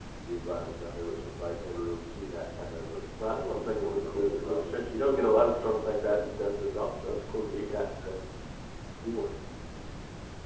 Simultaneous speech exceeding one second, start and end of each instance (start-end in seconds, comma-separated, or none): 3.2-5.3